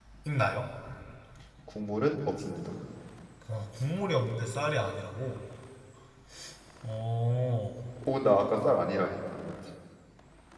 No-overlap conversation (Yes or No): Yes